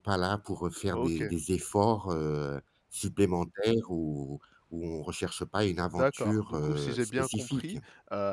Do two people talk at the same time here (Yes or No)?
Yes